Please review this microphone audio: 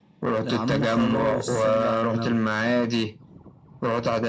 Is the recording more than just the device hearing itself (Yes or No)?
No